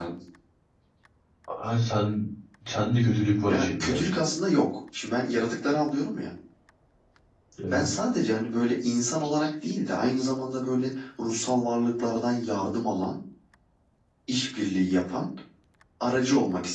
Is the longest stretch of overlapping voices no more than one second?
Yes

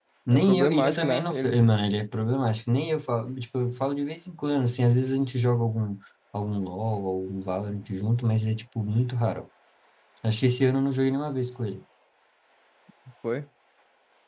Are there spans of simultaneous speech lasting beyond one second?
Yes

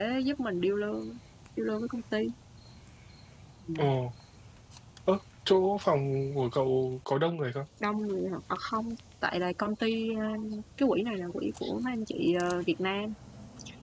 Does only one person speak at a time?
Yes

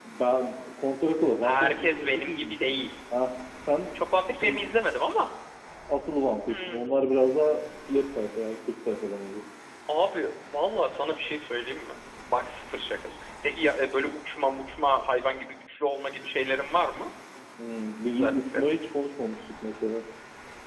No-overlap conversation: No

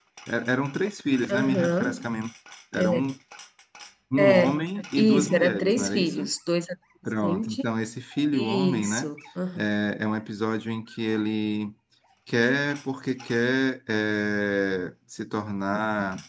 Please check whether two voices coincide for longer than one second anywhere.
Yes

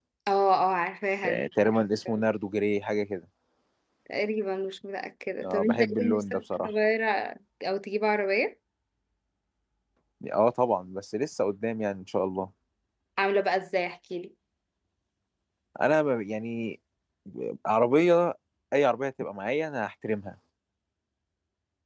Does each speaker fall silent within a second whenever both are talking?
No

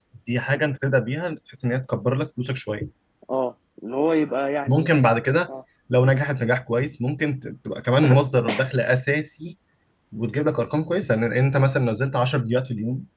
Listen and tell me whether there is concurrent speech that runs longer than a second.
No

